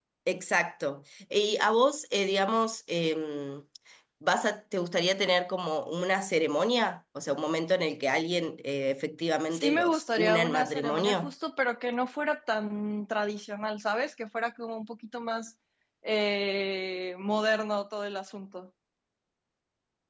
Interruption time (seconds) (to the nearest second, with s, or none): 10 s